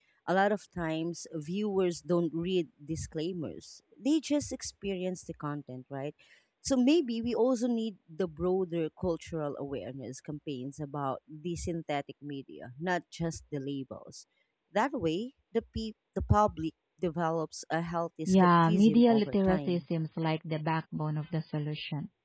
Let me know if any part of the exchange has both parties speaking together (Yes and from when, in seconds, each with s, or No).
Yes, from 18.3 s